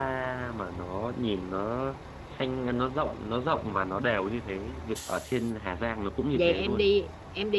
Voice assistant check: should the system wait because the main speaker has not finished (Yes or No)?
No